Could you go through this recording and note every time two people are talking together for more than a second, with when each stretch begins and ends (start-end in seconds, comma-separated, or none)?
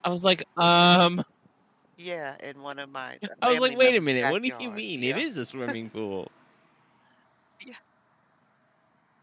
3.5-5.2